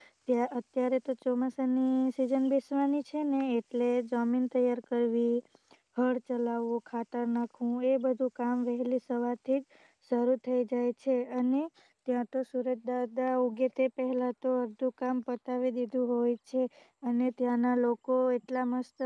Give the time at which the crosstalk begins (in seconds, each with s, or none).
none